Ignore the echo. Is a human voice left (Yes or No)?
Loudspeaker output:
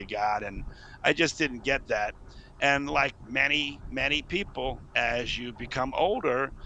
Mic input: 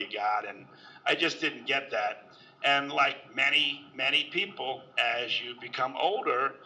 No